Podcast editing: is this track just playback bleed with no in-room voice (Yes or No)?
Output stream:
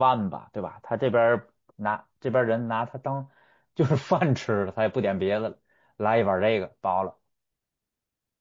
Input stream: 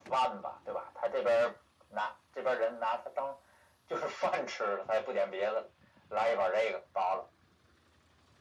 Yes